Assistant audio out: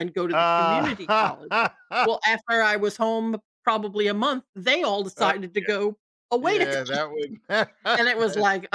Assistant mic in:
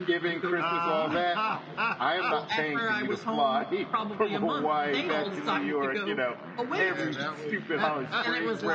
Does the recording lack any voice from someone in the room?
No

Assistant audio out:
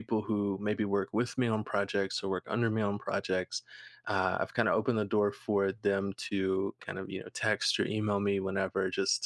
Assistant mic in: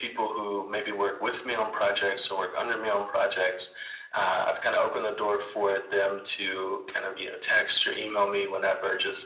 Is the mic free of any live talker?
Yes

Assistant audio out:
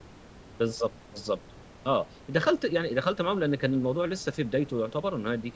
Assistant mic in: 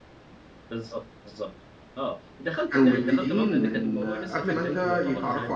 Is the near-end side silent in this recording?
No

